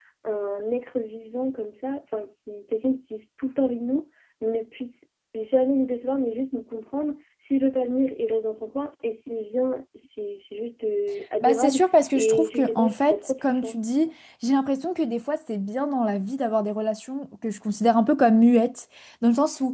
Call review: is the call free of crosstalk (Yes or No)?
No